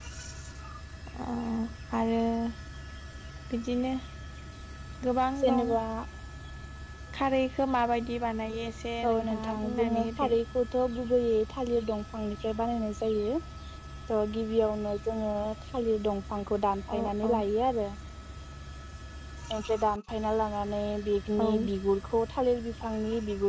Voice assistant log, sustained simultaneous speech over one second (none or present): present